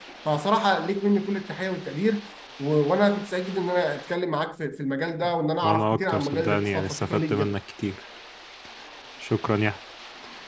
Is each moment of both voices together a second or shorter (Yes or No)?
No